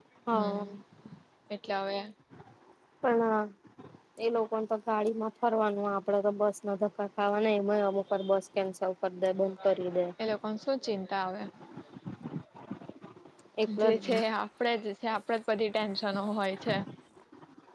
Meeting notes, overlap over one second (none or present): none